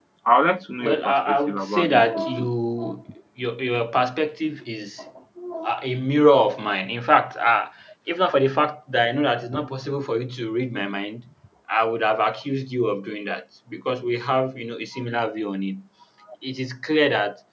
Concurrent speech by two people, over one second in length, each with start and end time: 0.8-2.5

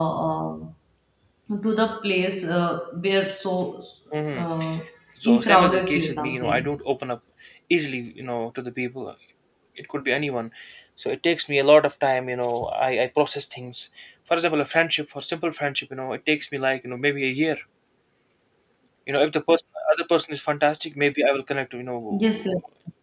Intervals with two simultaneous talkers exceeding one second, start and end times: 5.2-6.7

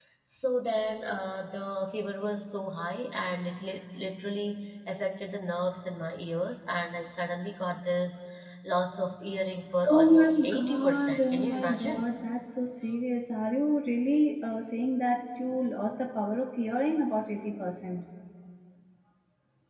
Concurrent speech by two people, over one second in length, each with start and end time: 9.9-12.0

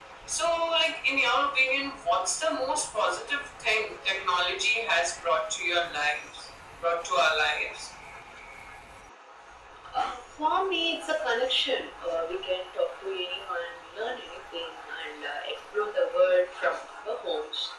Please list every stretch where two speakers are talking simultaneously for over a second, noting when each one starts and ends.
none

